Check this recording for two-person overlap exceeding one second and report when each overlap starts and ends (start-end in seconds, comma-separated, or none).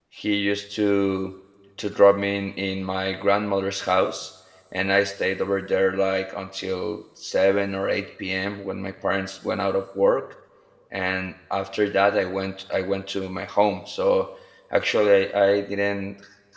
none